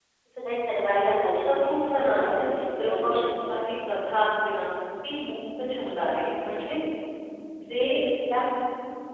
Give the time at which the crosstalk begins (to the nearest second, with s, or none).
1 s